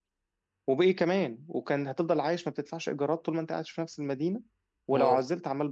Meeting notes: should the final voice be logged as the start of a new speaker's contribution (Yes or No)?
No